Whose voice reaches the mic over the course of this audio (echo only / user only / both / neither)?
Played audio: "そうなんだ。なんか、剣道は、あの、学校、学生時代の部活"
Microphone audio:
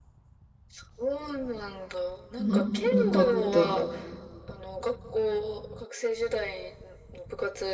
both